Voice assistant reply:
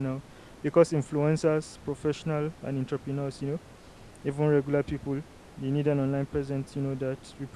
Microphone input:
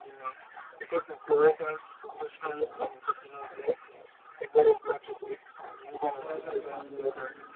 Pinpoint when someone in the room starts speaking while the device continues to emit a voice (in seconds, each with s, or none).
6.2 s